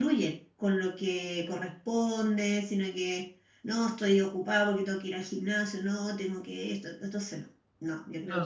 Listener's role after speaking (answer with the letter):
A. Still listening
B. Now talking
B